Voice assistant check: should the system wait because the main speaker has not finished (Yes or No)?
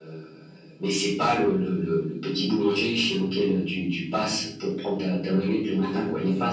No